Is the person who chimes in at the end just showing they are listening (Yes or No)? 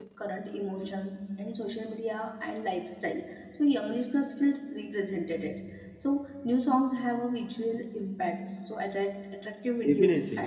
Yes